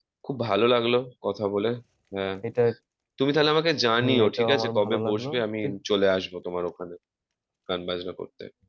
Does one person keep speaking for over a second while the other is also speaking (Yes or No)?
Yes